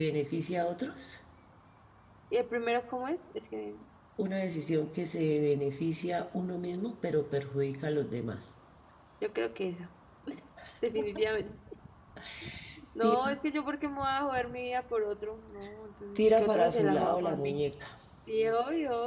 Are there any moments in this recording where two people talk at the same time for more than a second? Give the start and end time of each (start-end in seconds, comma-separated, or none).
16.2-17.6